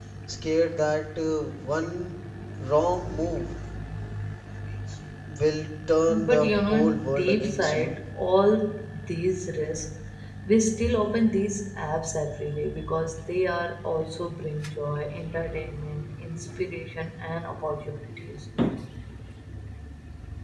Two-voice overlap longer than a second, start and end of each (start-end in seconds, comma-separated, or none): 6.1-8.0